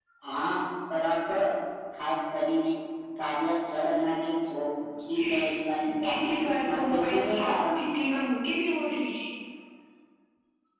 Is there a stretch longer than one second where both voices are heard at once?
Yes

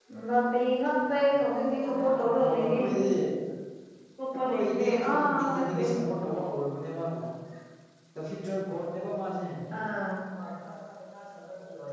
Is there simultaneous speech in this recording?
Yes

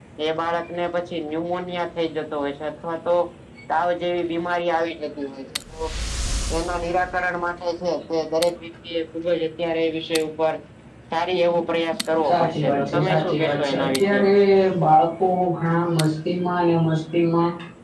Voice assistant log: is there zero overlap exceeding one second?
No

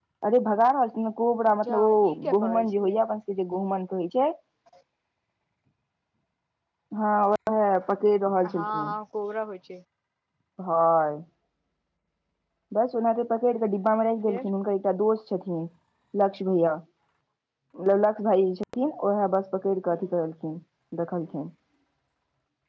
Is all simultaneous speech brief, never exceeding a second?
No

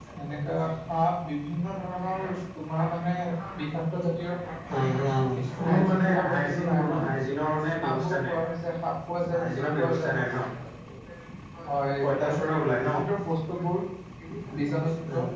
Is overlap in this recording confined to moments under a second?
No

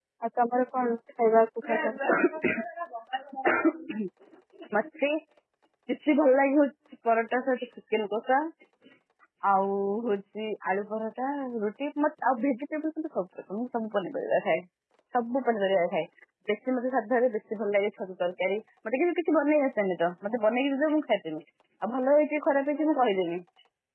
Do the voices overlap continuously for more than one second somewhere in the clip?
No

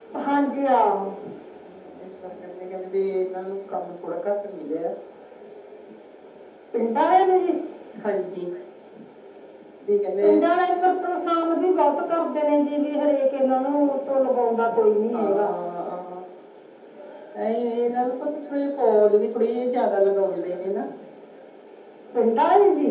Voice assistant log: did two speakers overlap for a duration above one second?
No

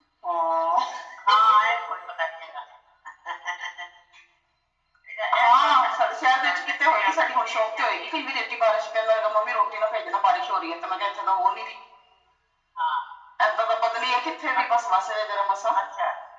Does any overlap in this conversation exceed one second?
Yes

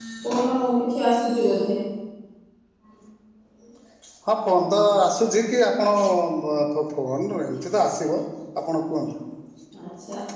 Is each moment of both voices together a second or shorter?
Yes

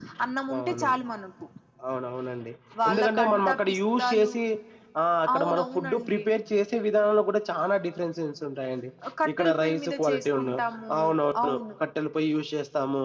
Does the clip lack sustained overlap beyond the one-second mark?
No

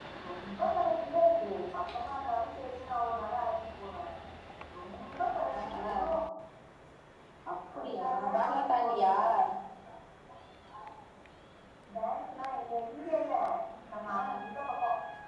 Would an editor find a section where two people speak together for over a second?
Yes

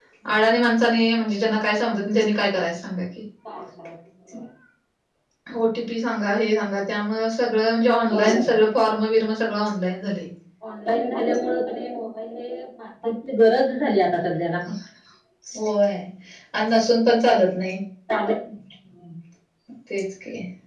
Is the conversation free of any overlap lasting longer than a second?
Yes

